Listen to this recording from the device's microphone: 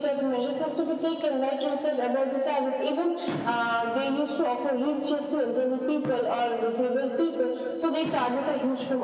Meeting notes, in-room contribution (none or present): none